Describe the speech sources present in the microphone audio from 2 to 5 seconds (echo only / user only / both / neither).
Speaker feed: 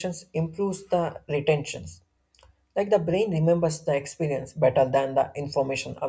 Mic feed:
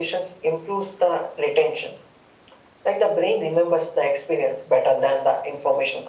echo only